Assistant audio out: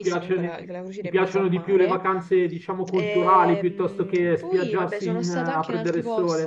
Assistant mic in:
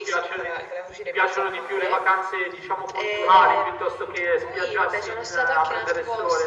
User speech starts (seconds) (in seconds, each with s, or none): none